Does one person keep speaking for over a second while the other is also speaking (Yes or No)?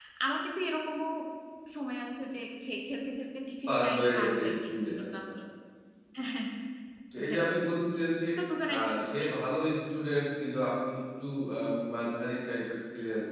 Yes